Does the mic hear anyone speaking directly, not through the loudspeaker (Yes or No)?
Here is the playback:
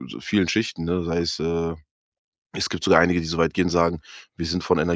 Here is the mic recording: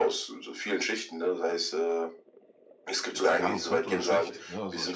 Yes